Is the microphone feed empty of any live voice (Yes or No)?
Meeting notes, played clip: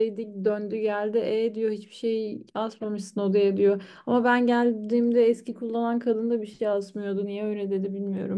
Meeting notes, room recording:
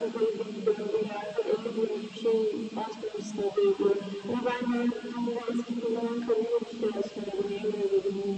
Yes